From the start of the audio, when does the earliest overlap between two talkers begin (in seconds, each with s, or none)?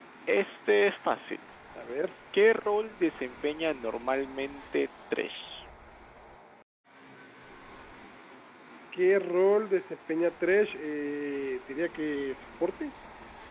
none